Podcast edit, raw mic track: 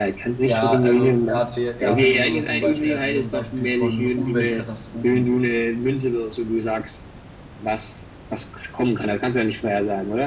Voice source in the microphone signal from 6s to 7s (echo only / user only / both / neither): echo only